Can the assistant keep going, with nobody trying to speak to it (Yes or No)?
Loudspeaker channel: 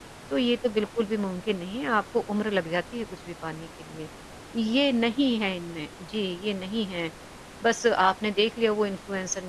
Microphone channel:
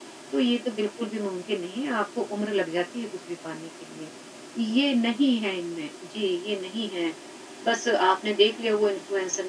Yes